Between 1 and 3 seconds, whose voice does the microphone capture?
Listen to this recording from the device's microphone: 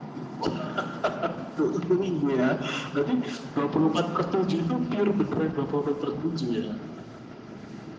echo only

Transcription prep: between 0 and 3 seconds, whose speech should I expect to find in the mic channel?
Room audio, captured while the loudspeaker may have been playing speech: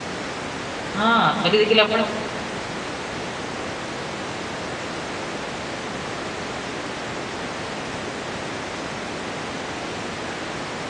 user only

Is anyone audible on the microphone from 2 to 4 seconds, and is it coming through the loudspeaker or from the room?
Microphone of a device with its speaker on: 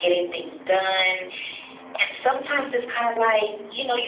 echo only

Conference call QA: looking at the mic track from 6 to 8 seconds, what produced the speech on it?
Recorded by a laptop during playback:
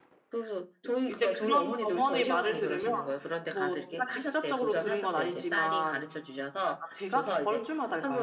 both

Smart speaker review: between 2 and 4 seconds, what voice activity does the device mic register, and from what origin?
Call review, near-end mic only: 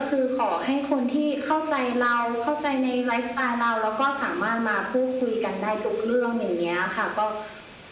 echo only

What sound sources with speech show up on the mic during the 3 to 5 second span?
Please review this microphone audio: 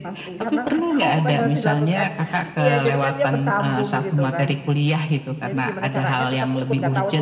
both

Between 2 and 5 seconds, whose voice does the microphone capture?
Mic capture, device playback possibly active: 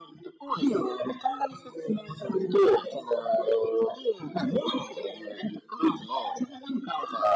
echo only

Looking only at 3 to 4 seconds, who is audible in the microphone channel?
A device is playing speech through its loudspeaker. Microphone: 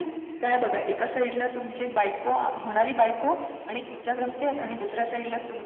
echo only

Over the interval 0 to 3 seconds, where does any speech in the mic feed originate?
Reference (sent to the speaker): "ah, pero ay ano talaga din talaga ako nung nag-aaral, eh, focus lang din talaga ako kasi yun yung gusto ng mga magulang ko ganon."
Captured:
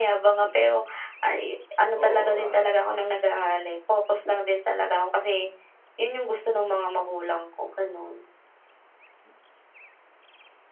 both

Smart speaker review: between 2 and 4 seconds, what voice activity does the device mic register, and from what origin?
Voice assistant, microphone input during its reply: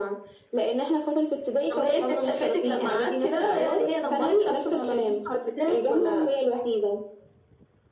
echo only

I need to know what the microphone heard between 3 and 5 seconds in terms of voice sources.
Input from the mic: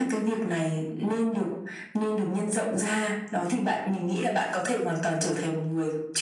echo only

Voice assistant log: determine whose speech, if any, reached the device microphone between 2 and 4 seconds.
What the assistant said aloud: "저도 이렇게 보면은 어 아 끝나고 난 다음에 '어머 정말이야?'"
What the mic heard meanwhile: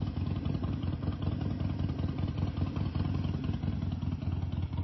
neither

